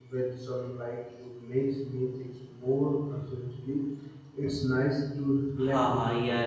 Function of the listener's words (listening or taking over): taking over